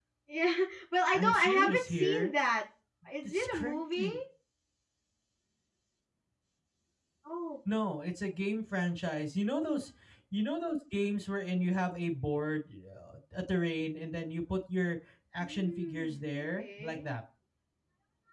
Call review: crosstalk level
present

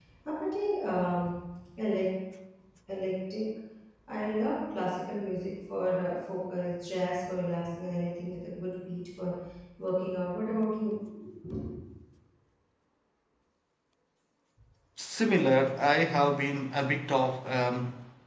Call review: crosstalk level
none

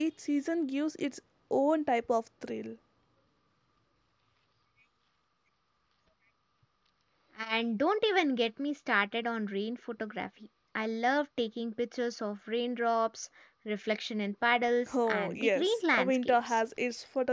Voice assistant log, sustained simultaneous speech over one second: present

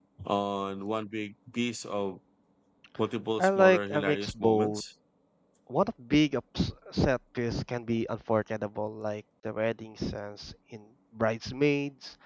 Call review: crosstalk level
present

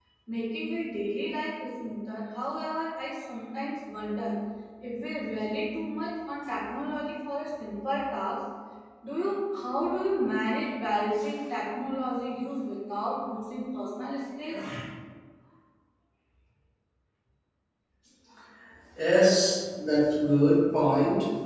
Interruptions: none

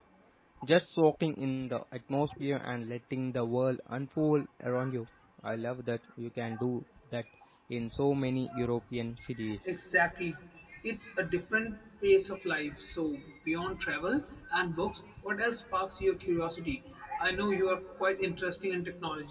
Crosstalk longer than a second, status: none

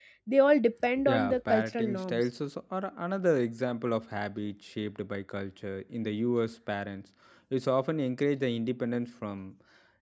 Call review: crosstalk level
present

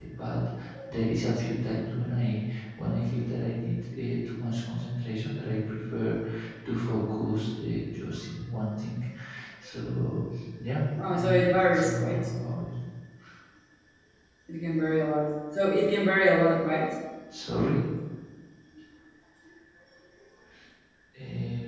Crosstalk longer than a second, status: present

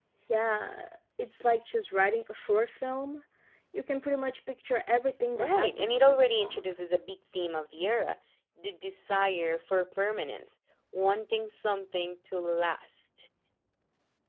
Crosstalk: present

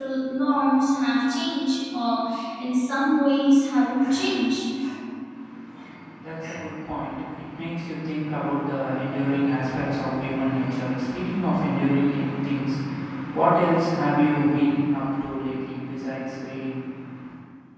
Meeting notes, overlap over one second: none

